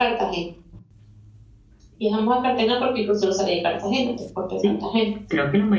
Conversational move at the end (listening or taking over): taking over